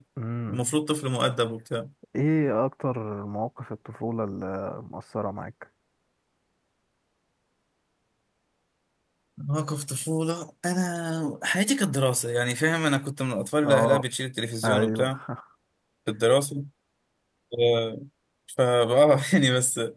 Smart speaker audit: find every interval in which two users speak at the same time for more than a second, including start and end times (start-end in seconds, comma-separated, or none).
none